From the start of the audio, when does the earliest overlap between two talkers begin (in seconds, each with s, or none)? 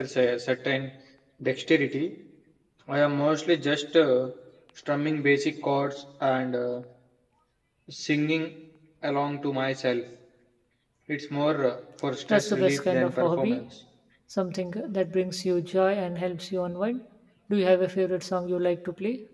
12.3 s